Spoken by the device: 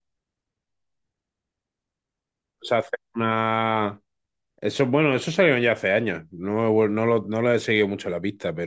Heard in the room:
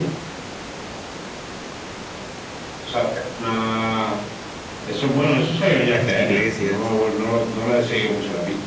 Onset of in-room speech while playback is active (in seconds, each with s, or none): 5.9 s